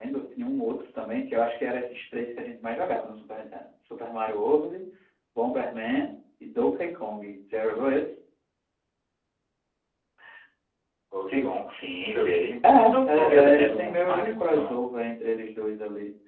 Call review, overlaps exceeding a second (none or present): present